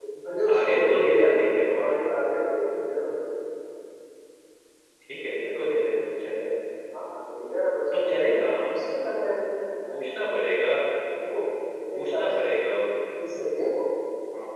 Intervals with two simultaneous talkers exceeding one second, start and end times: 0.5-1.9

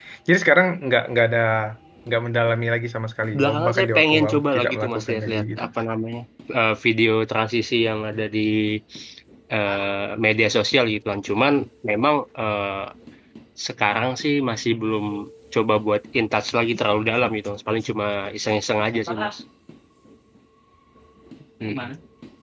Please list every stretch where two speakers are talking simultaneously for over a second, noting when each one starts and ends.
3.4-5.6

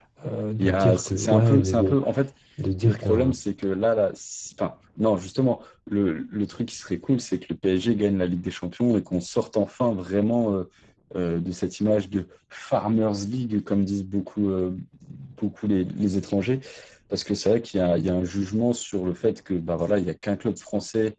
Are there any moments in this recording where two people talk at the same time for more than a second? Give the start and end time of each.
0.6-2.0

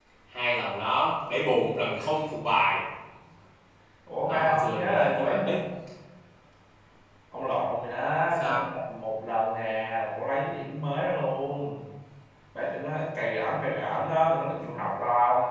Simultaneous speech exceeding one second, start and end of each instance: 4.3-5.5

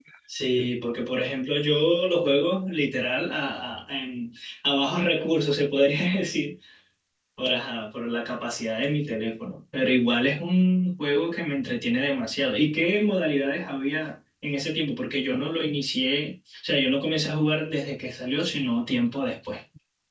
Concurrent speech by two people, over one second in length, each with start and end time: none

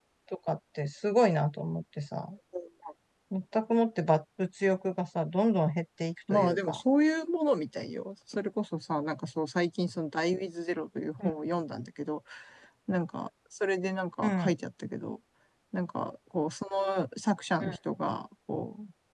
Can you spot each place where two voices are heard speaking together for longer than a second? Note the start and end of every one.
none

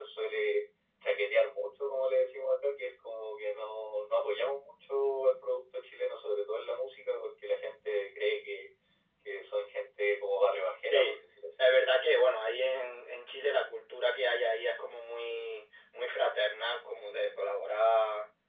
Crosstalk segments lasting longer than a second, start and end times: none

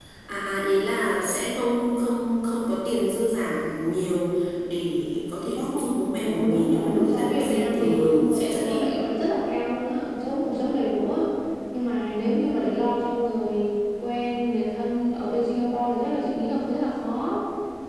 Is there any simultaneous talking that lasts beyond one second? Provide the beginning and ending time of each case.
5.6-8.8

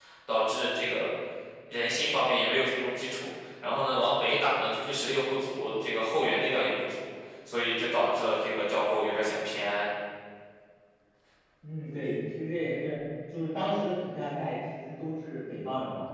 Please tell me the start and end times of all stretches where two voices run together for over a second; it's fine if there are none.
none

